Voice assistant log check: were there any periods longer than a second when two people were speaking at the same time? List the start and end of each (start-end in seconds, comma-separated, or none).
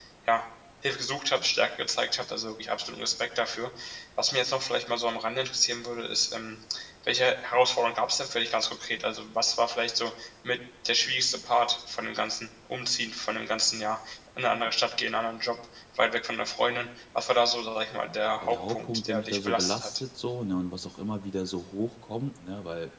18.4-20.0